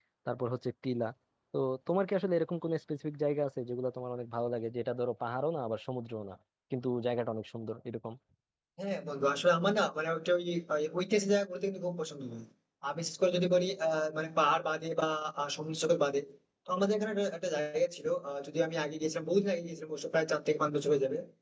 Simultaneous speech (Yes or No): No